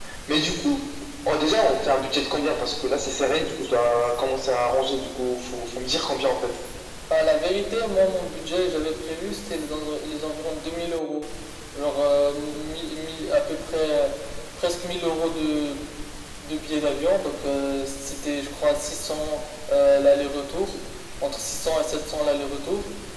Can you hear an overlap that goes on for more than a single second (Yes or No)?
No